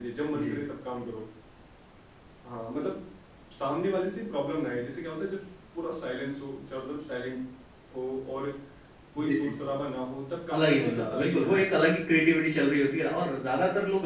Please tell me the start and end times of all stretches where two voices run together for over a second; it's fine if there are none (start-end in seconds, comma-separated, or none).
10.5-11.8